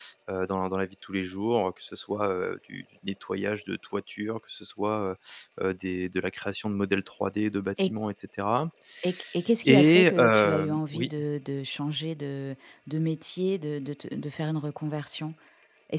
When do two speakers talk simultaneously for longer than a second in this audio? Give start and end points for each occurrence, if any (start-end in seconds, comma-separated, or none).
9.7-11.1